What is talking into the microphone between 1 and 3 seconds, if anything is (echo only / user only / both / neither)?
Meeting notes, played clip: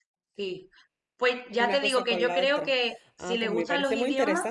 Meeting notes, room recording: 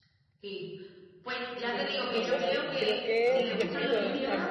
both